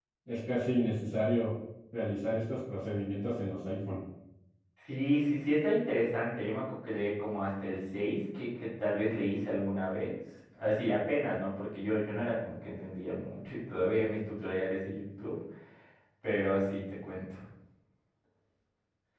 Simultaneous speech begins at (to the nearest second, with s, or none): none